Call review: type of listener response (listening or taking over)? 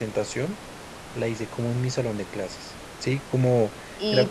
taking over